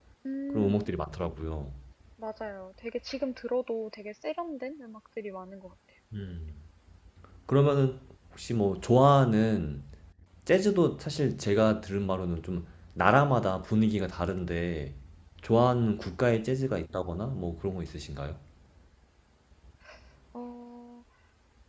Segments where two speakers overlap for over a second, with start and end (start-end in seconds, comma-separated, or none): none